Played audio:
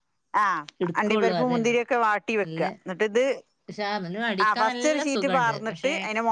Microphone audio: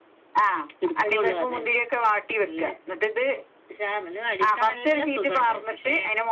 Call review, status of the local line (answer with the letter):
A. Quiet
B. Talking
A